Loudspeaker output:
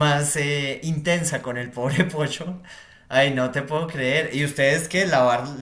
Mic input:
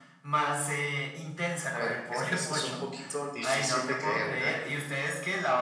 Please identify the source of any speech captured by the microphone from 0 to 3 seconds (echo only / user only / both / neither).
both